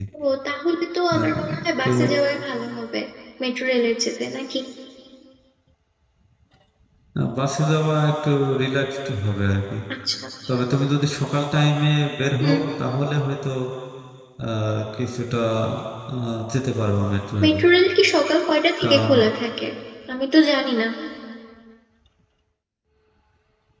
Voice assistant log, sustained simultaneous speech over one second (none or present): none